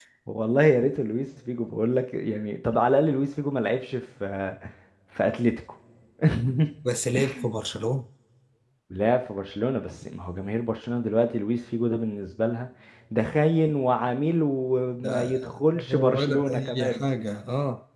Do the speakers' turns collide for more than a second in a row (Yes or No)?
Yes